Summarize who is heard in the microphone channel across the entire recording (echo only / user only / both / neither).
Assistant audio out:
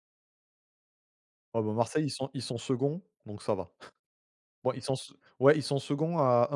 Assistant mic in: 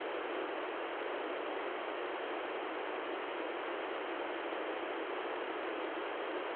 neither